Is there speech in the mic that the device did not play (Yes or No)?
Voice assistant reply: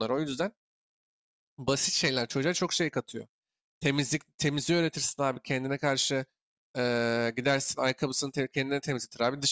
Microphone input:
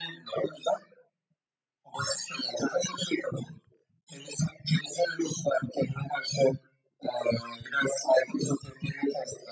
No